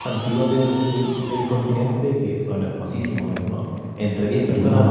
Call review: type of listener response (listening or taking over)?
listening